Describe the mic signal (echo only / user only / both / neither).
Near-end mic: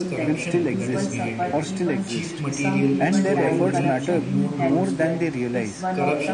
both